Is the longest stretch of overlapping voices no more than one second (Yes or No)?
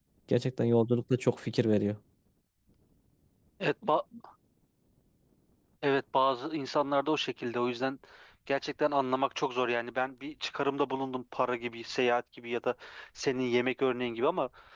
Yes